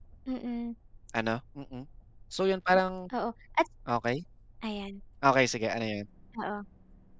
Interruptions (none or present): none